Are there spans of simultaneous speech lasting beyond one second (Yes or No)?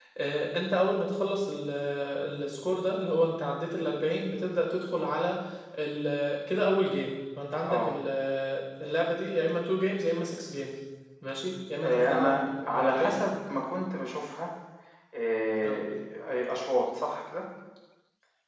Yes